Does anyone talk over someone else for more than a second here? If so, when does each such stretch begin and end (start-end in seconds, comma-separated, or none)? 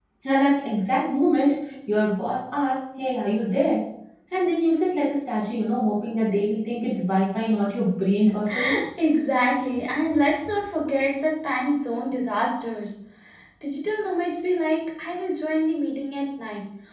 none